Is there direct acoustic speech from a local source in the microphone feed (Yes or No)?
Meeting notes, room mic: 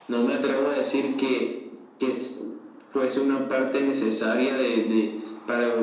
No